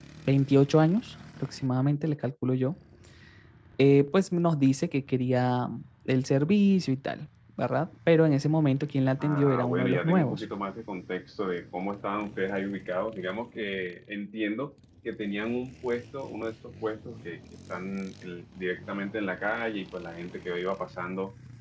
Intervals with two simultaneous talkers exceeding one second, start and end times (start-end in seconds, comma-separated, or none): 9.2-10.4